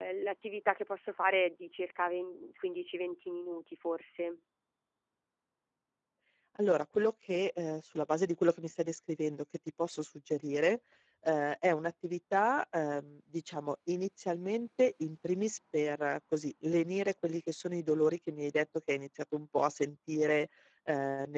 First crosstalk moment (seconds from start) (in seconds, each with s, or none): none